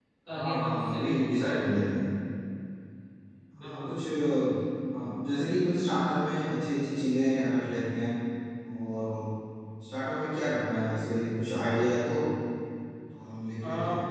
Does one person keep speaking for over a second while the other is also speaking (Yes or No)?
Yes